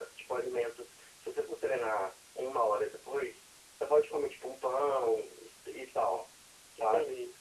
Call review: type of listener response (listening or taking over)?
listening